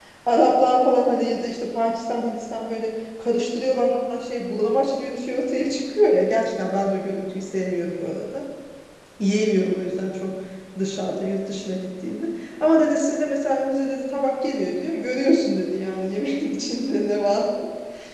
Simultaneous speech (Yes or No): No